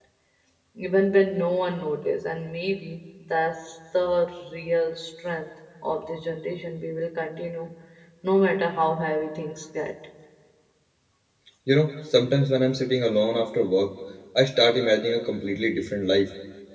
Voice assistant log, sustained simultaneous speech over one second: none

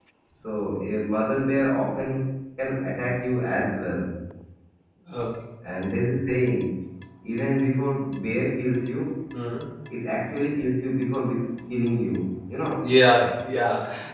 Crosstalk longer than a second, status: none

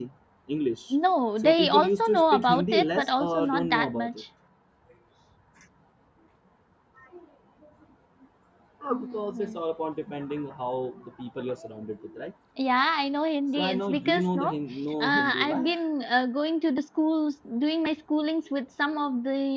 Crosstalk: present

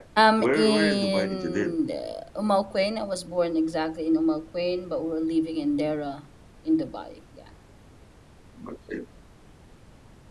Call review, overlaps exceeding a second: present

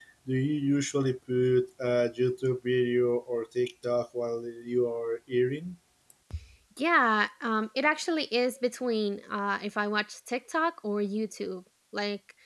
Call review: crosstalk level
none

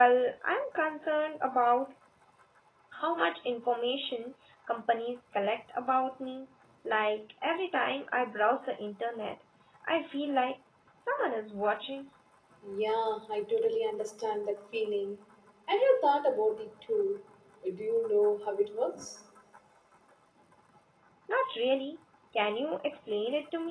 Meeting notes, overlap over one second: none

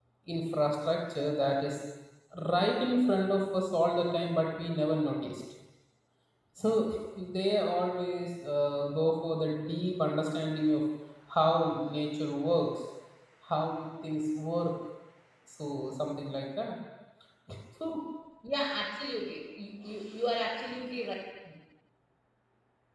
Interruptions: none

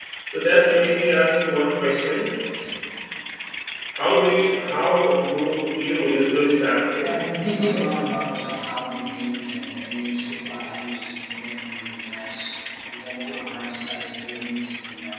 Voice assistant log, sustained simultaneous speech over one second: none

